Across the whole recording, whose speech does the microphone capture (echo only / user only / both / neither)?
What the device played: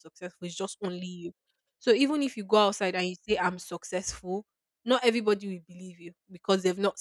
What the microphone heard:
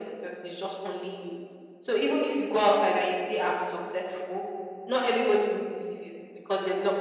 echo only